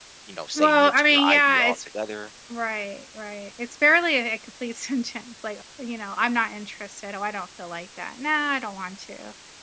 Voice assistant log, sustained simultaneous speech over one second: present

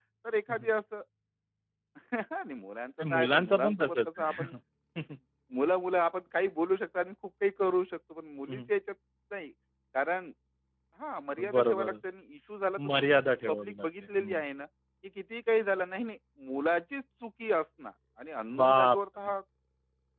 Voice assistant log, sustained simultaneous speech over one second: present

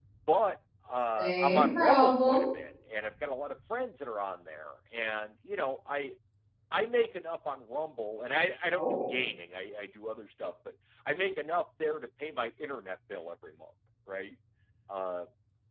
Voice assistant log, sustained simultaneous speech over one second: present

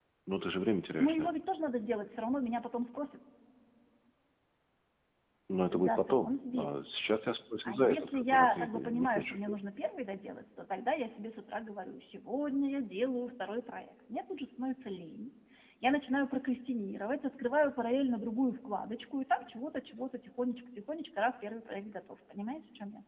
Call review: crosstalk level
present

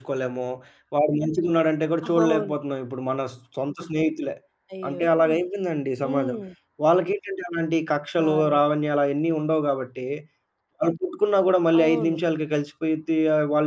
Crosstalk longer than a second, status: none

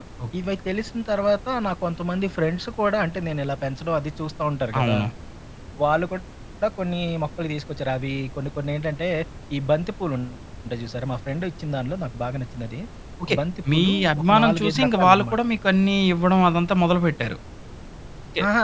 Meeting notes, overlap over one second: present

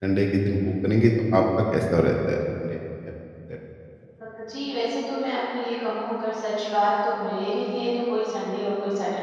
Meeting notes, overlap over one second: none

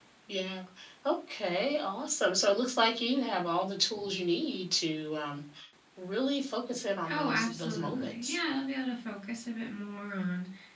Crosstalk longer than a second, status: present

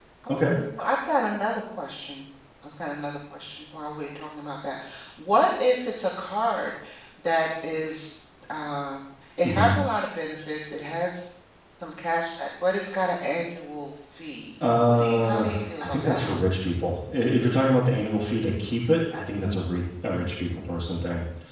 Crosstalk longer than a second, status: present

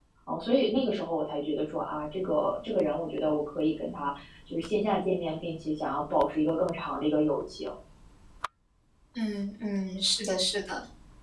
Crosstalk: none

